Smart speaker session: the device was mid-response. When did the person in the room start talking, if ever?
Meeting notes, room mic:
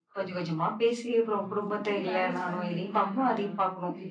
1.3 s

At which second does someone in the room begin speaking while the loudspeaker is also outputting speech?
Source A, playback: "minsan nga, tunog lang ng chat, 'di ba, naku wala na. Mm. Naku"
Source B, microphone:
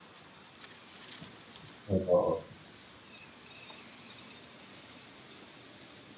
1.9 s

